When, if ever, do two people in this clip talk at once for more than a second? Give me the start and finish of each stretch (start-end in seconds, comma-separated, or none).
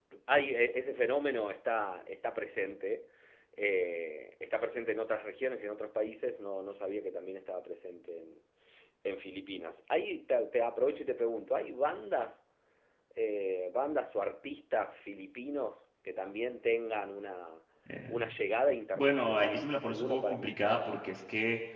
19.0-20.9